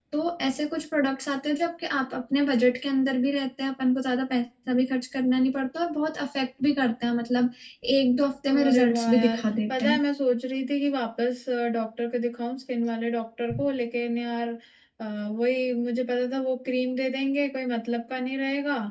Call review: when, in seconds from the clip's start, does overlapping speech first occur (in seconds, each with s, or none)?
8.5 s